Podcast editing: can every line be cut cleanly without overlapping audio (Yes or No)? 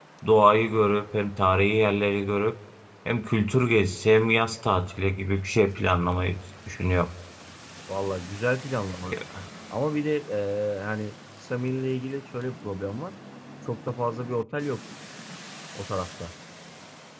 Yes